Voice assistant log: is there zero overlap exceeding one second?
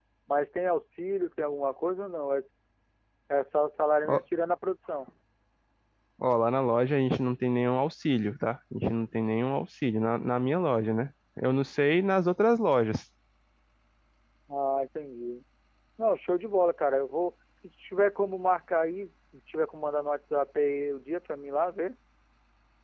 Yes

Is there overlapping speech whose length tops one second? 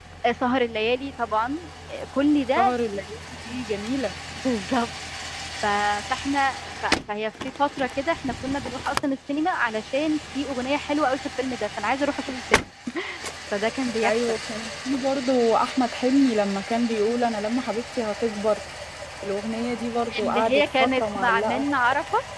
Yes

